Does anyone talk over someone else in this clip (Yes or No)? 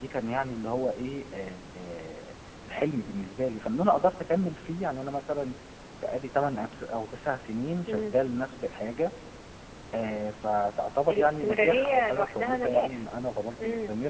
Yes